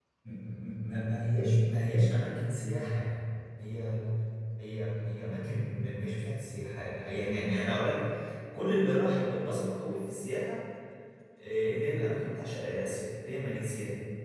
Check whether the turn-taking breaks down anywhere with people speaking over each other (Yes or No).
No